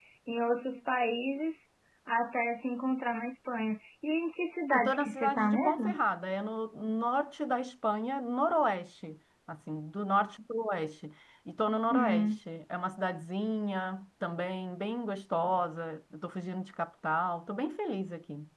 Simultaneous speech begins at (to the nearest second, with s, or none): 5 s